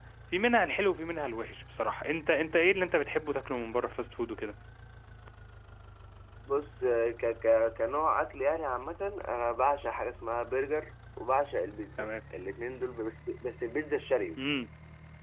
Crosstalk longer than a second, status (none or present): none